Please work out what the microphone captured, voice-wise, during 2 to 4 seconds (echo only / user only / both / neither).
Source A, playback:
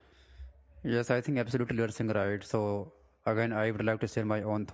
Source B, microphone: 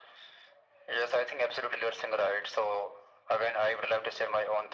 echo only